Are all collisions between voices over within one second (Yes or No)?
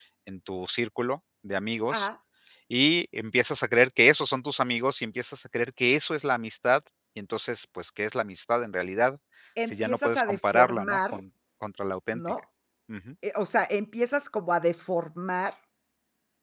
No